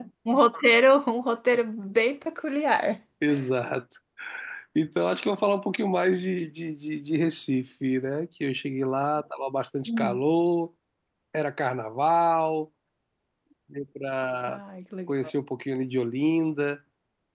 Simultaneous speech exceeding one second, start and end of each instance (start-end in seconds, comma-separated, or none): none